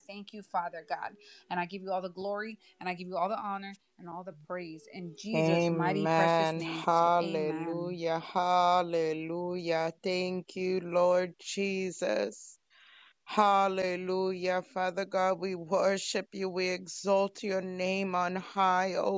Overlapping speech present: Yes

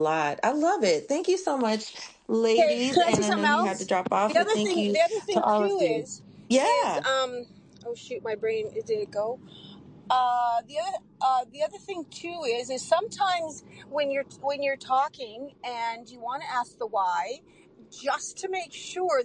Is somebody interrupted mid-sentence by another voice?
Yes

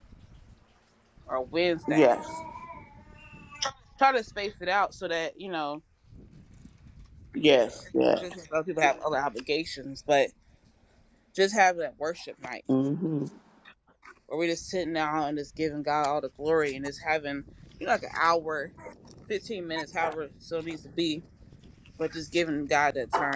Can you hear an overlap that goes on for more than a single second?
No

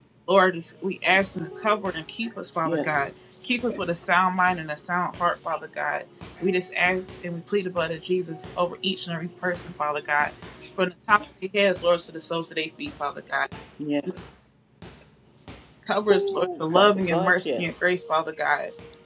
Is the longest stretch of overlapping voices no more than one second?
No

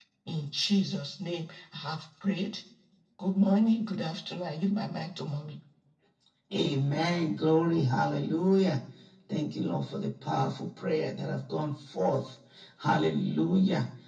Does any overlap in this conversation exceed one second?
No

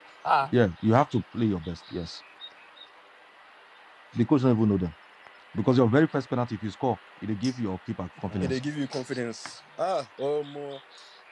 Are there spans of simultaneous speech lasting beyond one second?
No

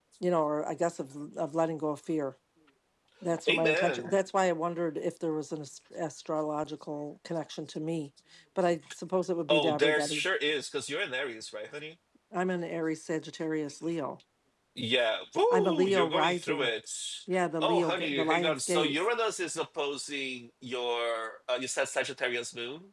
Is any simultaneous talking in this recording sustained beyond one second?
Yes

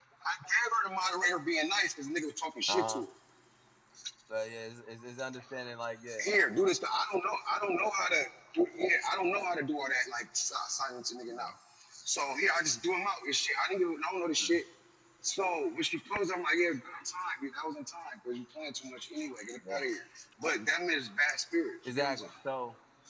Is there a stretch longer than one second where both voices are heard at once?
No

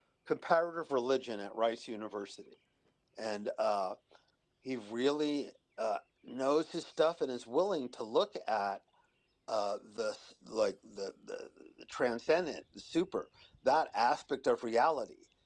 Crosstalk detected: No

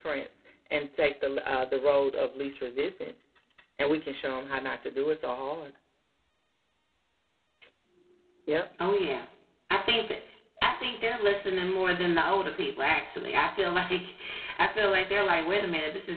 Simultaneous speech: No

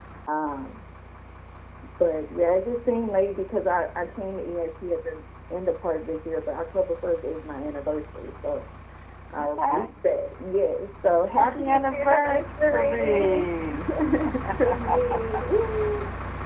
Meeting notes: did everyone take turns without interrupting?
No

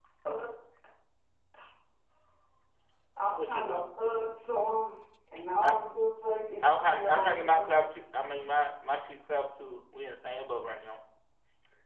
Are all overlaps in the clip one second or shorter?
No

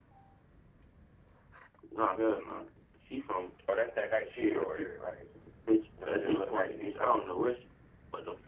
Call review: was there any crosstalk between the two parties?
Yes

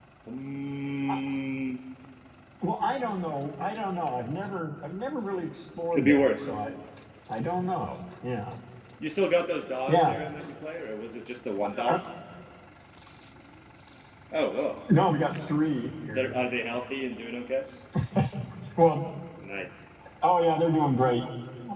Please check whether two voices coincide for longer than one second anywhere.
No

